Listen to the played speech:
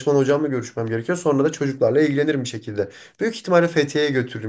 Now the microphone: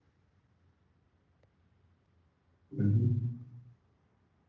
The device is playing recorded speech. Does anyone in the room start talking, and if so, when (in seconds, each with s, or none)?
2.8 s